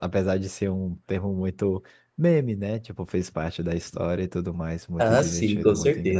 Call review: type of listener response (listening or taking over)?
taking over